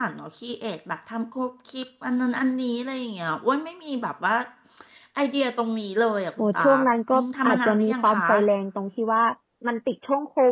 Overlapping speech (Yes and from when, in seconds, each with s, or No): Yes, from 6.4 s